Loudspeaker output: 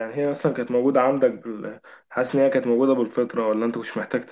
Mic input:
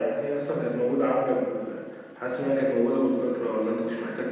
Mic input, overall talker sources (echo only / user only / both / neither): echo only